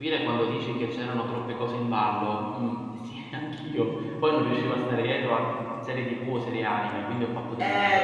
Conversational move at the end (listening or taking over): taking over